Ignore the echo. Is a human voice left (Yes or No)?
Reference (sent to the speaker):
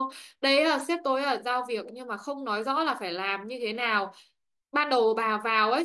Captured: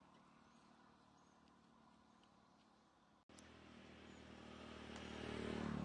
No